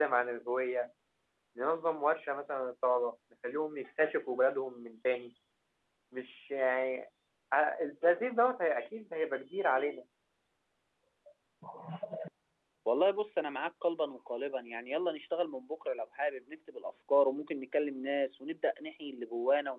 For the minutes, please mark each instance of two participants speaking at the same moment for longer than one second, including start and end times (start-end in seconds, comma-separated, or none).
none